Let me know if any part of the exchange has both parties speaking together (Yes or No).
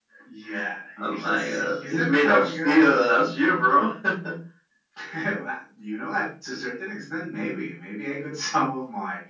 Yes